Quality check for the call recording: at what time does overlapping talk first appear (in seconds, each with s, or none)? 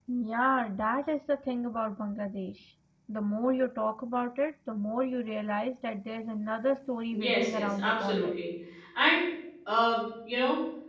7.1 s